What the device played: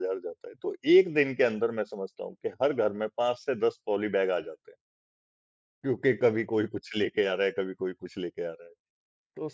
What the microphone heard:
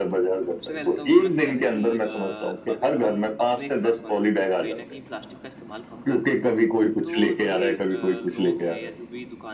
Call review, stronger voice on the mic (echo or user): echo